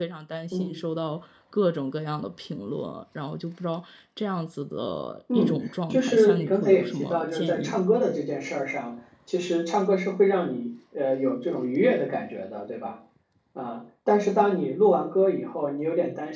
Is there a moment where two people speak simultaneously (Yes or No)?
Yes